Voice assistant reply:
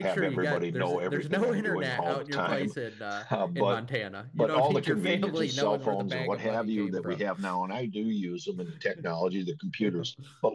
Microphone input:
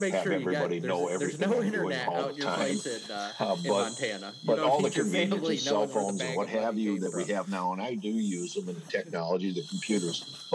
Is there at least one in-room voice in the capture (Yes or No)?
No